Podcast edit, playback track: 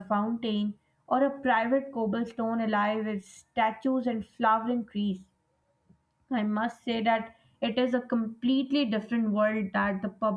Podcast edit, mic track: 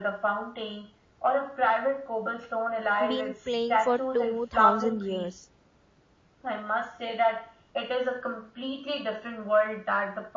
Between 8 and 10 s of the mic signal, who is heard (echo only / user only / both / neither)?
echo only